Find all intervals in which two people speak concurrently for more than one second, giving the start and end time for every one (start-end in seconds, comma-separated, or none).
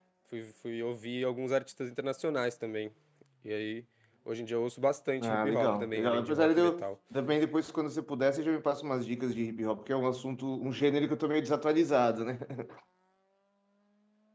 5.2-6.8